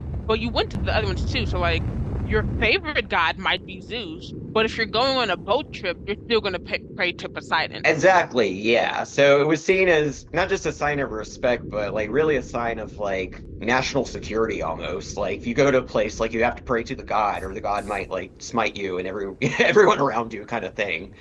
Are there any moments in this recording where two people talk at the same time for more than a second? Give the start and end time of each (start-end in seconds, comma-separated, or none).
none